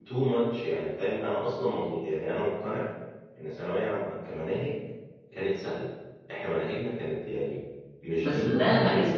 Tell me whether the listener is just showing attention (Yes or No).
No